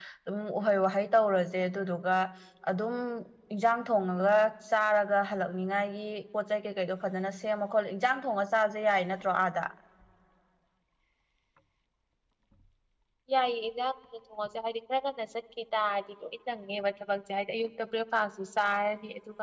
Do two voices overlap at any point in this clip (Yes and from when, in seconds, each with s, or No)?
No